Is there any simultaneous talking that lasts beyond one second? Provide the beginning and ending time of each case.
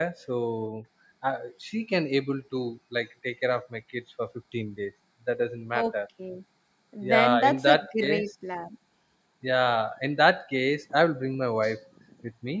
7.0-8.2

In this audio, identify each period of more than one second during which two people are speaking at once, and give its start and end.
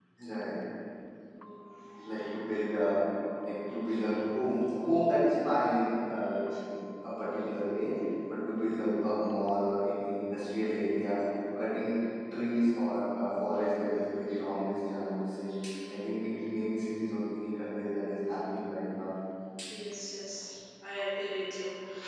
none

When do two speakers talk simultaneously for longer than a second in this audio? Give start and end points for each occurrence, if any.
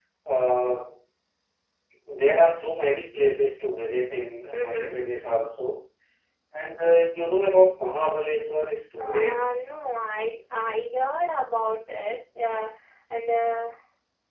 none

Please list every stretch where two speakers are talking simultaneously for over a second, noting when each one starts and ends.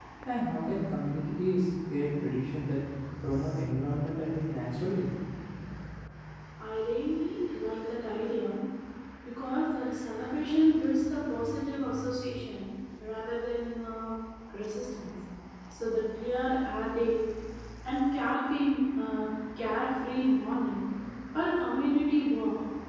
none

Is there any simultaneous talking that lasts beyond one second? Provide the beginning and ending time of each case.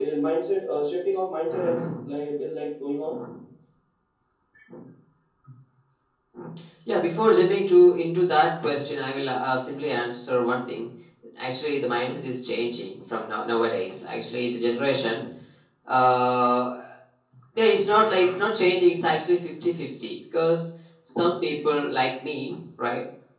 none

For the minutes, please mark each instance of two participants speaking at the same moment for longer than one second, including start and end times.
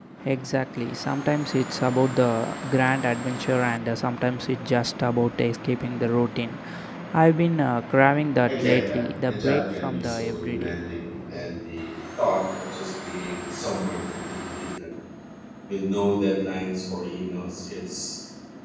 8.5-10.8

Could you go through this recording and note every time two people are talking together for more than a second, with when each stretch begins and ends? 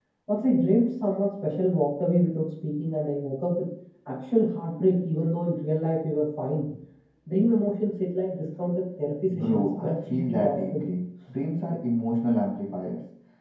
9.3-10.8

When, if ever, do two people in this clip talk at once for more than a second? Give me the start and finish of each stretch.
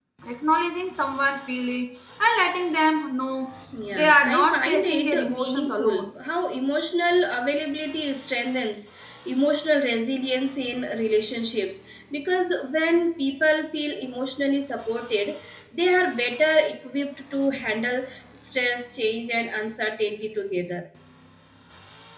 3.9-6.1

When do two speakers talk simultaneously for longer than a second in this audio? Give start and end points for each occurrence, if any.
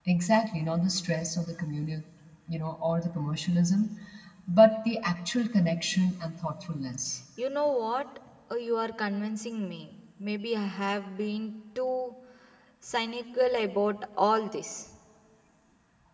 none

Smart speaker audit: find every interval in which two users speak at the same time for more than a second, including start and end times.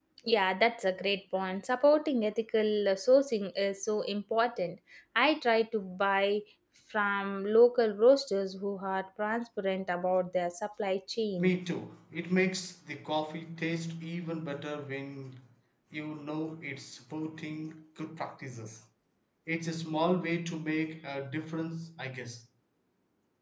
none

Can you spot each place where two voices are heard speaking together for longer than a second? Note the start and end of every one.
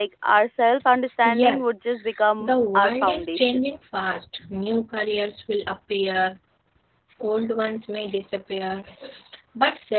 2.4-3.7

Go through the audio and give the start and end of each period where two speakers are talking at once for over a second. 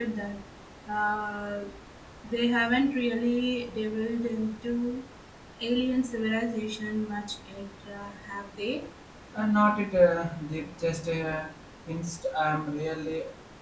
none

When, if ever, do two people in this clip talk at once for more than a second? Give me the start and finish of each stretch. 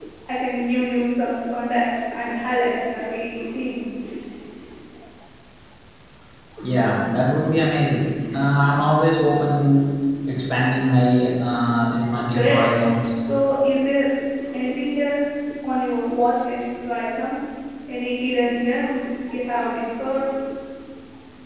none

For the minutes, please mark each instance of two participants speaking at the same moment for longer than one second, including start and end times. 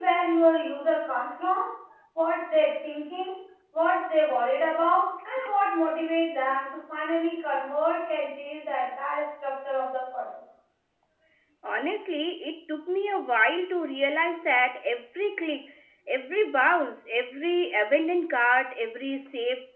none

